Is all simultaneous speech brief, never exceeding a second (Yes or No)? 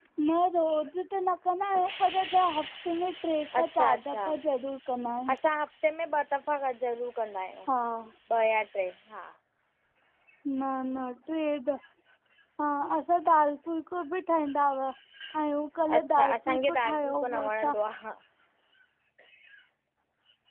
No